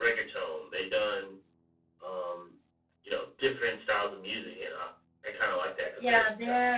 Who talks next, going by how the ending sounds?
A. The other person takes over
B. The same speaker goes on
A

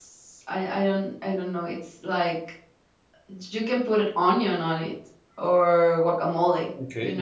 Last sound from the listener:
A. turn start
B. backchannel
B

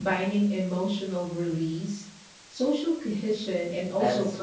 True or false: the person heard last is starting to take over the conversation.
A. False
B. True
B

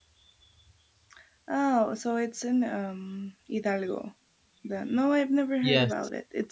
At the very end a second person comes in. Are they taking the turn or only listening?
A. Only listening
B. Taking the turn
A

